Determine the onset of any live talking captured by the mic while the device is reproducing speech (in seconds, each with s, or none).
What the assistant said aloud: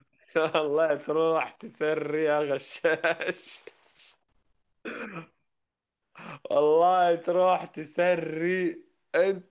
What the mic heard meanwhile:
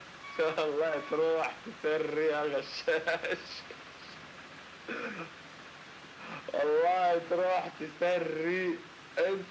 none